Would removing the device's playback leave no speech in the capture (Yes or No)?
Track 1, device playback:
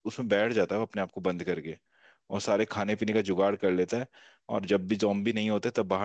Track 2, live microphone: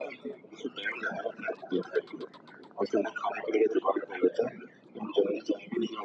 Yes